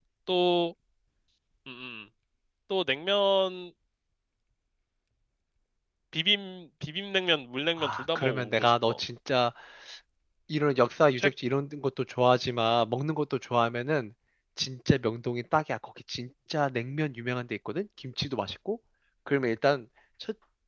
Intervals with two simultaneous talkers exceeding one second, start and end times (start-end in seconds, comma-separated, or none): 7.8-9.0